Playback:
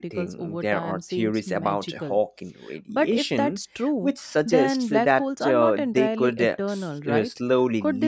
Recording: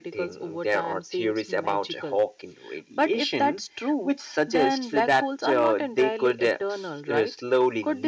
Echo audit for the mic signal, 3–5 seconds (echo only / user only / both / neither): echo only